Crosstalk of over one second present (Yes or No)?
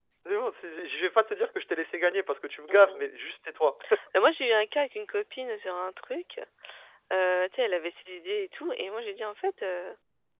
No